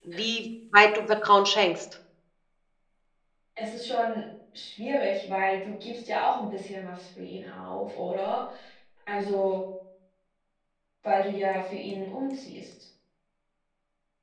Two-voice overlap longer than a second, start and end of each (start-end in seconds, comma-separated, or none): none